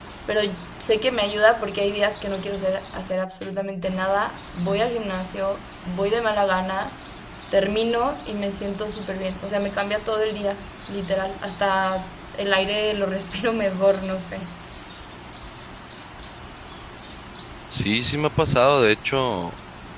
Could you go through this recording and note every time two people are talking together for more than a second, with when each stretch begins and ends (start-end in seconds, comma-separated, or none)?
none